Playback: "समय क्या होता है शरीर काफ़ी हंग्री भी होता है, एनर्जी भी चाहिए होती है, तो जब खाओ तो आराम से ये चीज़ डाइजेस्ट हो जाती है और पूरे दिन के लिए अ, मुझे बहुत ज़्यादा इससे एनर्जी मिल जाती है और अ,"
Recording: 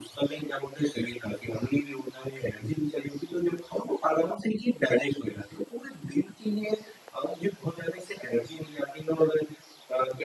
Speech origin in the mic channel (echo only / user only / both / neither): echo only